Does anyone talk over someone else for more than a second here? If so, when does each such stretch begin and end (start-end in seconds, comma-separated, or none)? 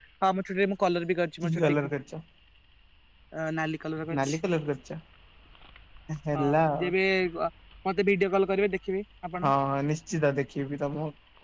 none